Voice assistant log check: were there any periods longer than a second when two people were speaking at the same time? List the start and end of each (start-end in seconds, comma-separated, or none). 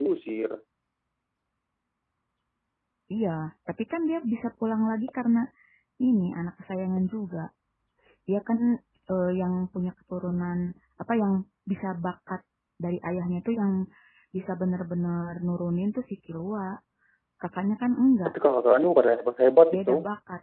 none